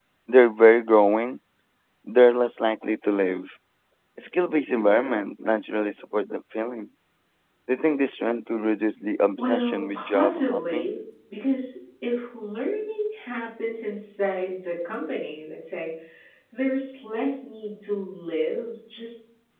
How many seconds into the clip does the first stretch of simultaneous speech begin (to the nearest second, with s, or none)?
9 s